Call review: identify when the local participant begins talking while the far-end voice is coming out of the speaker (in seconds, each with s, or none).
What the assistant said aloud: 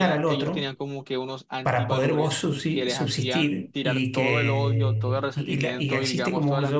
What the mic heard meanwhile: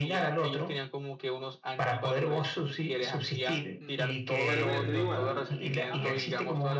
3.8 s